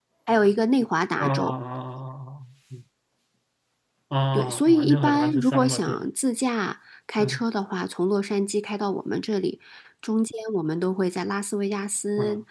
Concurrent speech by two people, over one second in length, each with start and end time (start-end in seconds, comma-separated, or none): 4.3-6.0